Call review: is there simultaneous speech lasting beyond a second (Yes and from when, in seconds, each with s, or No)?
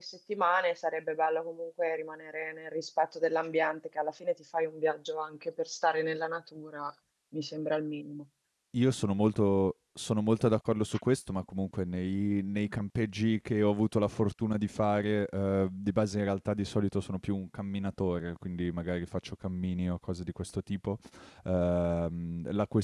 No